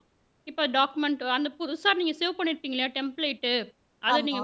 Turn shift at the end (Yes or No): No